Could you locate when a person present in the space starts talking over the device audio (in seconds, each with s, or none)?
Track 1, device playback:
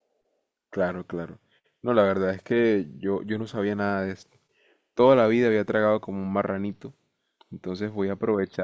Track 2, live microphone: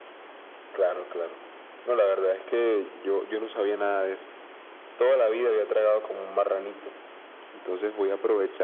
none